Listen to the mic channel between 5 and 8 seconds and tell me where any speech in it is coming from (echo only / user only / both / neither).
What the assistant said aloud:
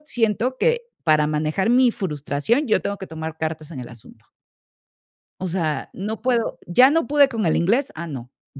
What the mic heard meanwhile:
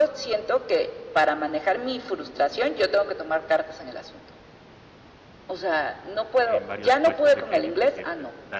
both